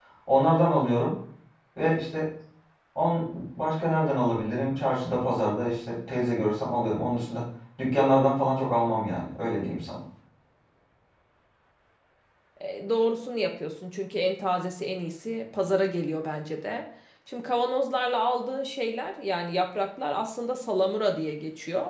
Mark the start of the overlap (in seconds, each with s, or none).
none